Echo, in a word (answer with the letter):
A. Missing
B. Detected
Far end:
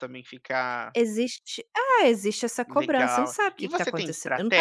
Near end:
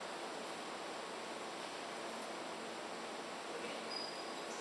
A